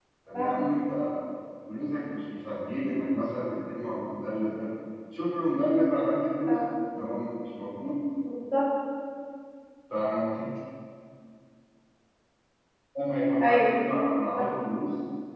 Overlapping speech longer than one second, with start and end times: none

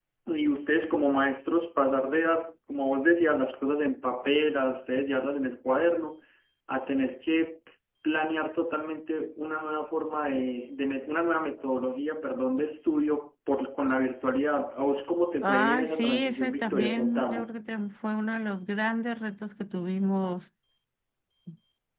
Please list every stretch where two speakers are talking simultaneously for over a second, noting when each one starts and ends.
15.4-17.5

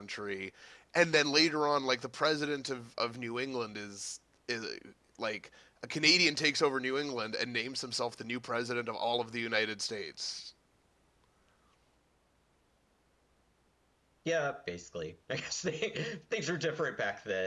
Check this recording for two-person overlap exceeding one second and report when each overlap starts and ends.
none

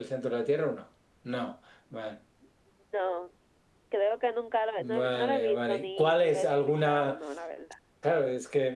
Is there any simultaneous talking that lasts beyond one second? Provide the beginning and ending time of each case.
4.8-7.2

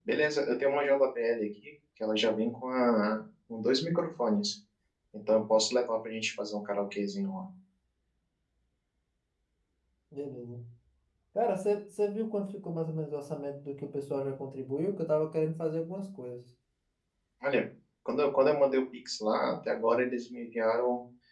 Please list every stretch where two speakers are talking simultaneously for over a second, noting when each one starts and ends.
none

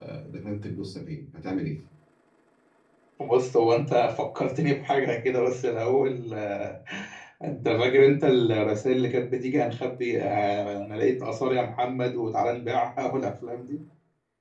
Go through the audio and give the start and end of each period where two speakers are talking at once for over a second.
none

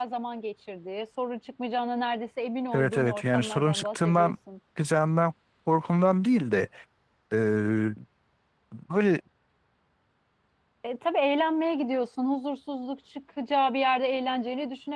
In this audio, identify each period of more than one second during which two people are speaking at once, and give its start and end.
2.7-4.3

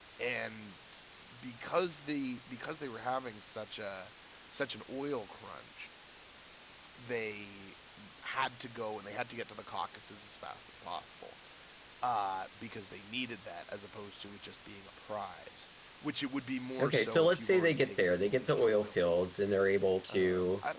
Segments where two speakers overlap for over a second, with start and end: 16.8-19.3

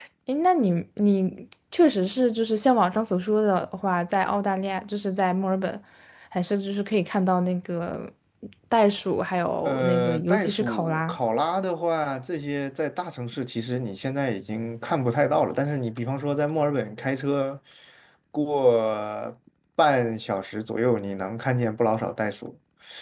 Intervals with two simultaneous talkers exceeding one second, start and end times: 9.6-11.2

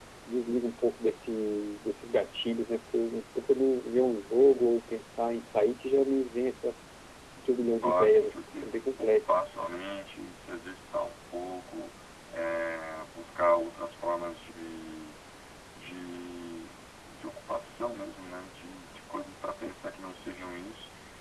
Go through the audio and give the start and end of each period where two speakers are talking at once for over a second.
7.8-9.4

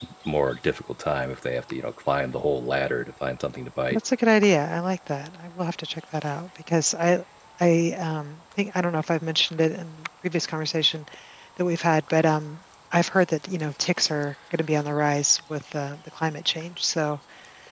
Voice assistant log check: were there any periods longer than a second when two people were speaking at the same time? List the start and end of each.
none

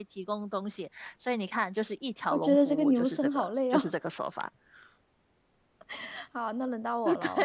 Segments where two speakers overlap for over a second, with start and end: 2.3-3.9

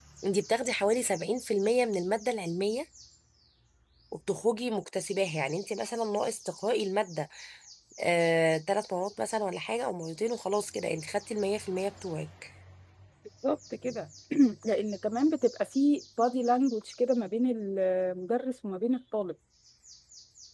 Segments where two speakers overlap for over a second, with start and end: none

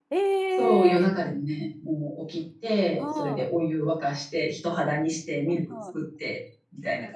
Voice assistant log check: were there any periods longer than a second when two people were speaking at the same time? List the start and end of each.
none

